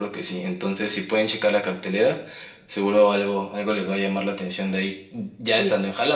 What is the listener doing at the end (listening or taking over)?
taking over